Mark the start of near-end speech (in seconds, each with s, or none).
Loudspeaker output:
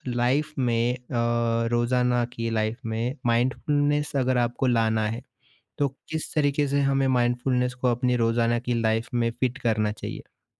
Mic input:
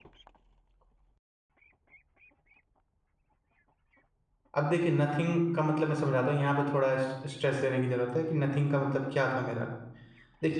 4.6 s